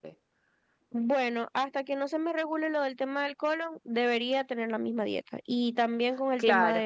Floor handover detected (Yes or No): No